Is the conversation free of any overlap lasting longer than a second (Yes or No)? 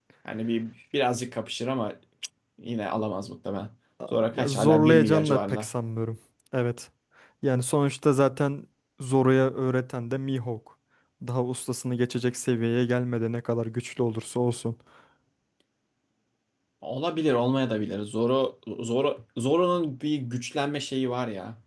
No